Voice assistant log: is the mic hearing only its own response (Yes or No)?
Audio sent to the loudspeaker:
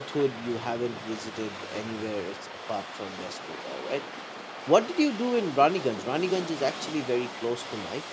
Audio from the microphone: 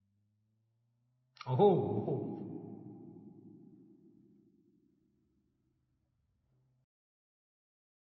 No